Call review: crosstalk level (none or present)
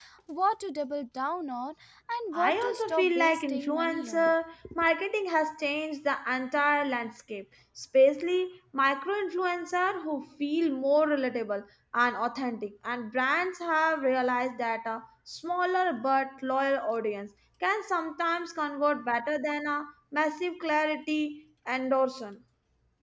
present